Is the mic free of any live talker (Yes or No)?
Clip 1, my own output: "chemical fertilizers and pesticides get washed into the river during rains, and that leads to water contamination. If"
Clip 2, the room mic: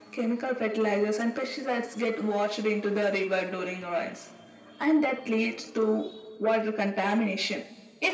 Yes